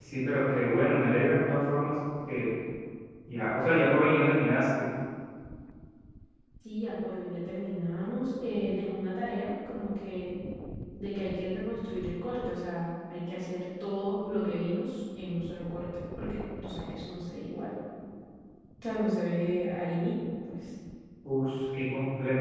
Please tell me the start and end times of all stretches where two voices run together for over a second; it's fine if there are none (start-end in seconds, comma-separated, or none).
none